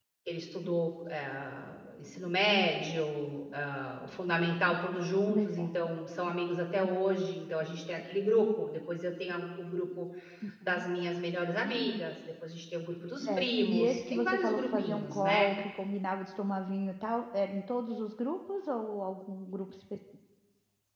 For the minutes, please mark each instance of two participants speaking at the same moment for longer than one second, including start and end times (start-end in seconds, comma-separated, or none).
13.2-15.5